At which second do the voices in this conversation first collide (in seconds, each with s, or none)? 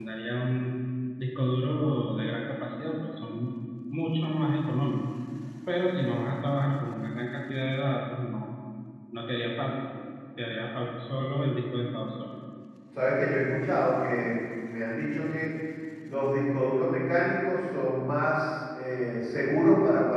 none